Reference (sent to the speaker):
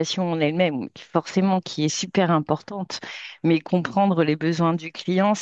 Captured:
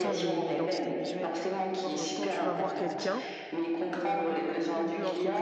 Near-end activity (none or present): present